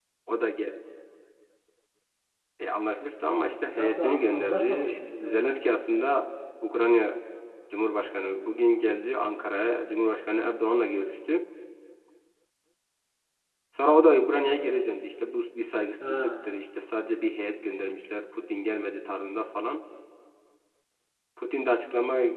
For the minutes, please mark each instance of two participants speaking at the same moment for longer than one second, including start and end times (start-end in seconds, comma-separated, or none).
3.5-5.5